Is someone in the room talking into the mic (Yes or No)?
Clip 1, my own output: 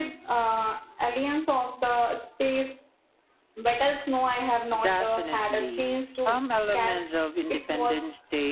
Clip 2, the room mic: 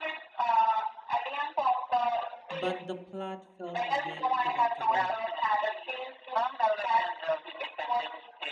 Yes